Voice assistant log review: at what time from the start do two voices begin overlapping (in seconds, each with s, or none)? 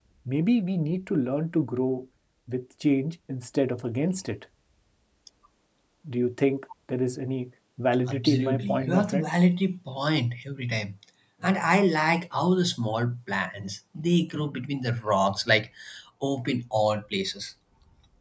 8.1 s